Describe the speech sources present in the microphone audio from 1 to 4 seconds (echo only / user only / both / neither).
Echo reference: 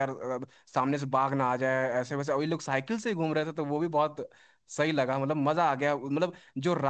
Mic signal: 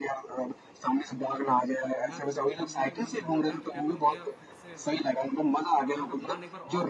both